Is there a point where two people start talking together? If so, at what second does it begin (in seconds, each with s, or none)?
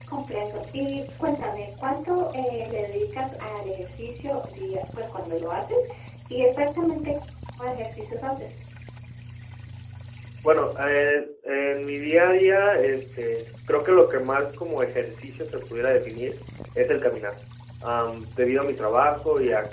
none